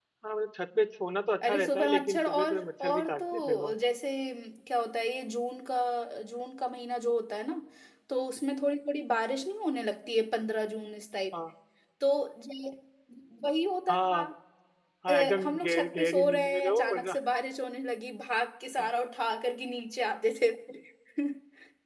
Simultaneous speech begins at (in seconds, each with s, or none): 1.4 s